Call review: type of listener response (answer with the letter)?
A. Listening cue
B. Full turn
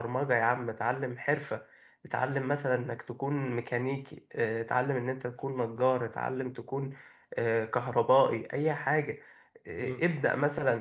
A